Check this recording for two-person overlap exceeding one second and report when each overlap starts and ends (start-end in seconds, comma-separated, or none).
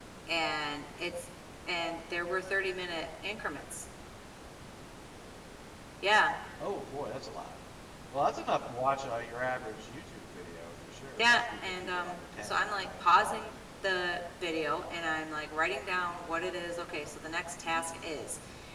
11.2-13.4